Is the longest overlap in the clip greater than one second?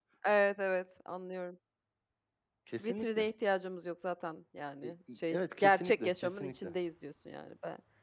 Yes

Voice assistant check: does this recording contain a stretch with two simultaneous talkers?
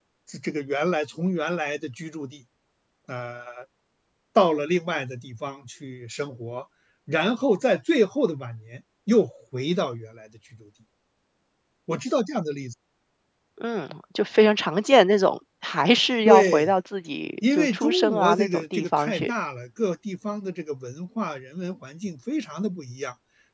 Yes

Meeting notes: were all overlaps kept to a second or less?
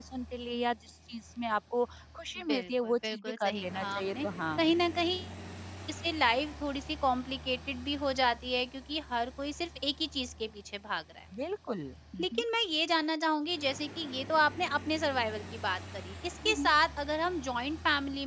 No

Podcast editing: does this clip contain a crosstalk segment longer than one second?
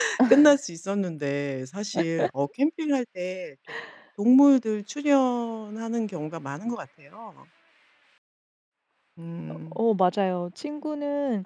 No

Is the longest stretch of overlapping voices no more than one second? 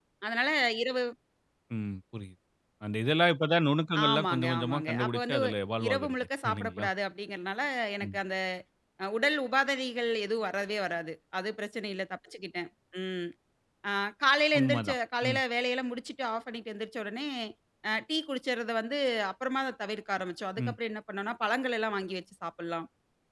No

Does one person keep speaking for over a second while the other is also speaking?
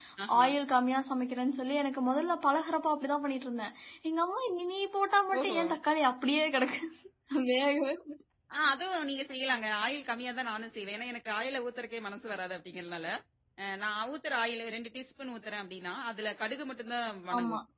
No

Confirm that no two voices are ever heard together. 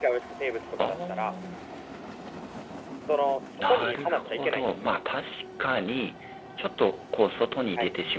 No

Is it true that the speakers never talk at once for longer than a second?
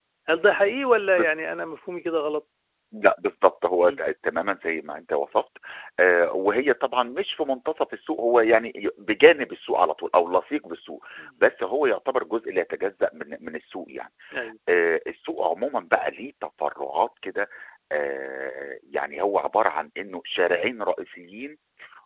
Yes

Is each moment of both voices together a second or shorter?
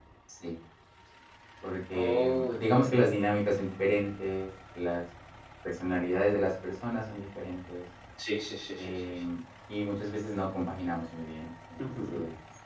No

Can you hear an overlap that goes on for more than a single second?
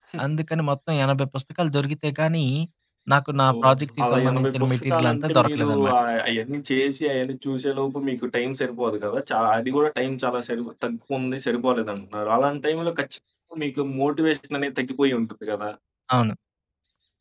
Yes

